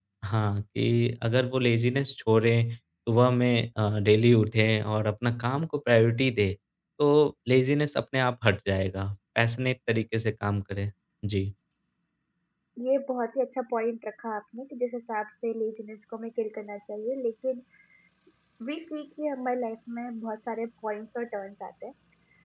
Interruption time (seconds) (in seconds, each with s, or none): none